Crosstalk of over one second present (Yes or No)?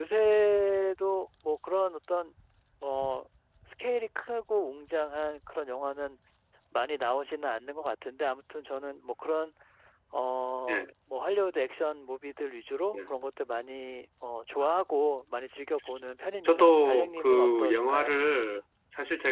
Yes